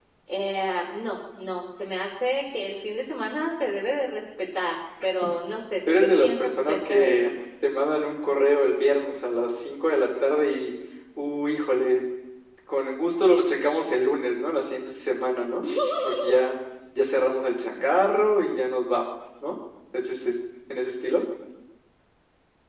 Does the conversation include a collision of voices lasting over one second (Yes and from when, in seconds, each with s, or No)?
Yes, from 5.9 s